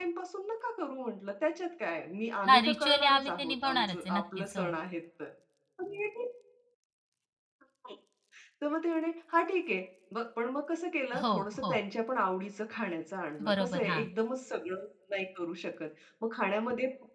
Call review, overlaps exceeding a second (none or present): present